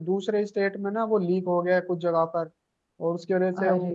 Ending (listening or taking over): listening